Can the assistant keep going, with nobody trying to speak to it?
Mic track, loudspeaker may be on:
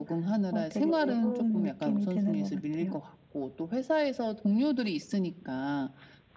Yes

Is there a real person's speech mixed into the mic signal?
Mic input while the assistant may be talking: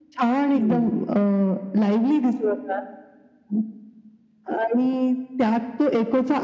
Yes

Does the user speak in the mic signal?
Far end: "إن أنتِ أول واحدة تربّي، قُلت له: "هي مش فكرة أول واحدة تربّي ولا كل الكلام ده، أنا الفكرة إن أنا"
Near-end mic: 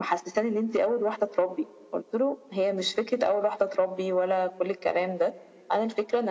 No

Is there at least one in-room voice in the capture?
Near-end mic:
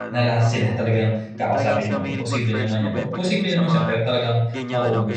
Yes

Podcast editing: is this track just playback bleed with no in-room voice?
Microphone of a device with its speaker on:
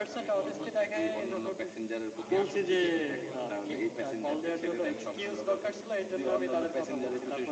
No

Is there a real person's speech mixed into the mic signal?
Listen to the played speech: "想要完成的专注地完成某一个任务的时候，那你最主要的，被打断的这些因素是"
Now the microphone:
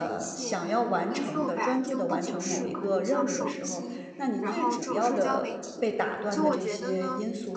Yes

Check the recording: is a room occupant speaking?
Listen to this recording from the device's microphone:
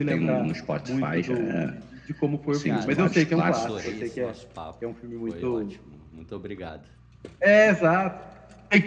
Yes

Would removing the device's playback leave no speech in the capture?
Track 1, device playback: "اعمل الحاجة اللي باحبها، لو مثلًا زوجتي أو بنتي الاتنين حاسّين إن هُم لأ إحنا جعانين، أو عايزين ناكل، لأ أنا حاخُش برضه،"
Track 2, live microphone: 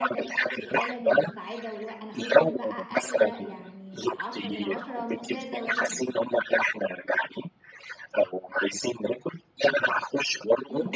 No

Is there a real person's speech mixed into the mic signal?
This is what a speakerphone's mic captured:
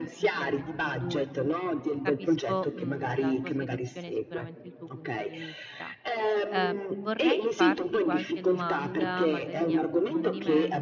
Yes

